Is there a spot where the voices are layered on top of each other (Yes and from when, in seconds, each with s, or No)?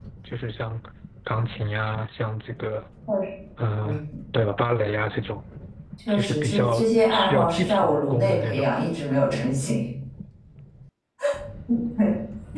Yes, from 6.1 s